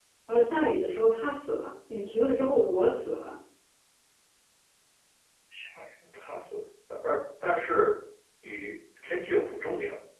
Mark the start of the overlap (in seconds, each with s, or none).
none